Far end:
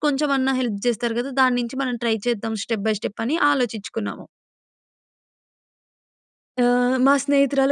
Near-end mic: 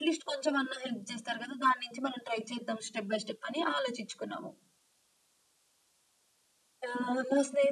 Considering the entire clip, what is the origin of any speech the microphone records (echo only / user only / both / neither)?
echo only